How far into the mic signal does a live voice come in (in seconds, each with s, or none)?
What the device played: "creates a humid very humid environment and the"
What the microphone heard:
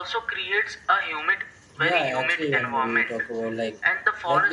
1.8 s